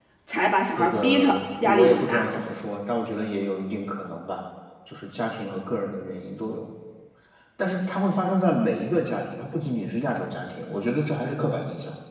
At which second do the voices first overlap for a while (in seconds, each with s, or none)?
0.8 s